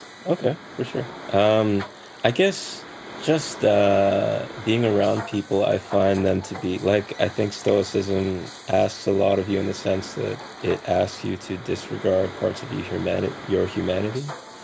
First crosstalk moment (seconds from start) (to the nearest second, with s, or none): none